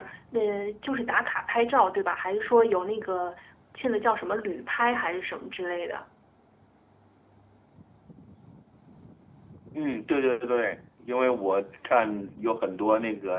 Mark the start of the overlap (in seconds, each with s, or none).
none